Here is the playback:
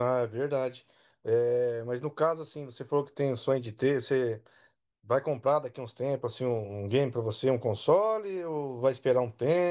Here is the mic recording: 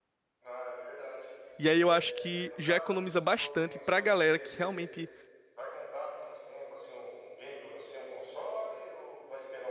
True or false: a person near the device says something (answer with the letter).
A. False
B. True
B